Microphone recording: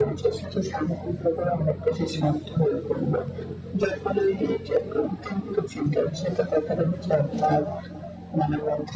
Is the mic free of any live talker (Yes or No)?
Yes